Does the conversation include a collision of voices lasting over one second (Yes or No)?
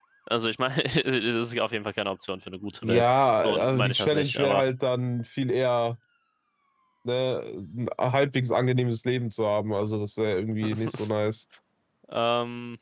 Yes